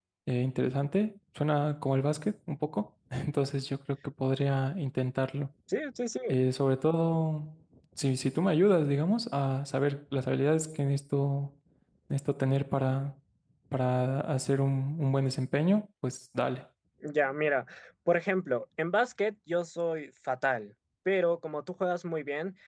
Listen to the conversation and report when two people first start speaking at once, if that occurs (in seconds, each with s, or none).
none